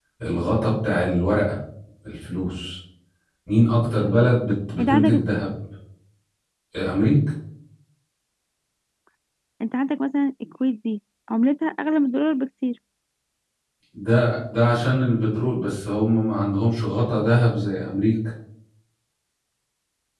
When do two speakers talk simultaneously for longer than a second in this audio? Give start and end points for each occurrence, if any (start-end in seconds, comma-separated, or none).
none